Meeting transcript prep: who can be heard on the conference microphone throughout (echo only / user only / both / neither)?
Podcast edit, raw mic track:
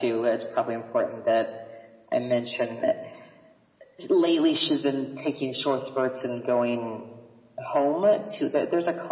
echo only